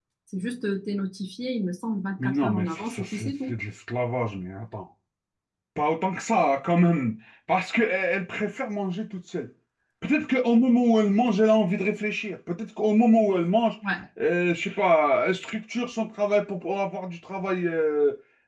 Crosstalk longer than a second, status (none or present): present